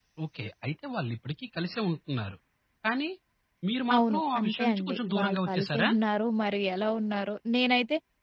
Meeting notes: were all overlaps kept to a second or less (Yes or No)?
No